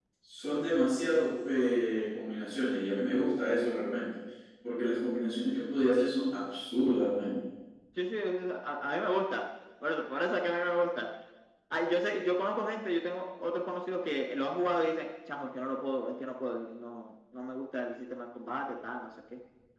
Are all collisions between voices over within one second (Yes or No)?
Yes